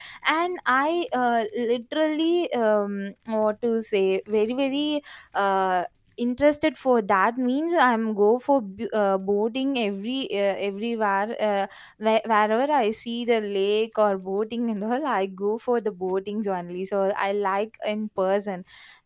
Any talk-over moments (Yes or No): No